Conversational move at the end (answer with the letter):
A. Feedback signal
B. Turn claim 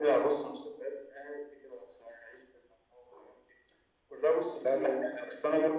A